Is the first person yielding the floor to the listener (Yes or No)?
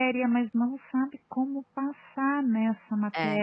No